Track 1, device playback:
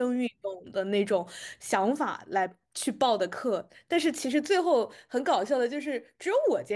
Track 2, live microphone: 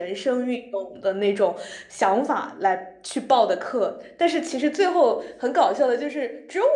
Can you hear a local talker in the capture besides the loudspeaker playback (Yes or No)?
No